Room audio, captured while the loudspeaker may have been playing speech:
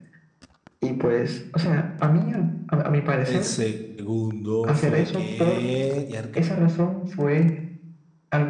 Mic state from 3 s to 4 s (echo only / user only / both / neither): both